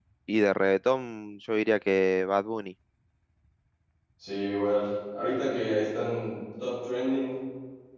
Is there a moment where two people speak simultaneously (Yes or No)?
No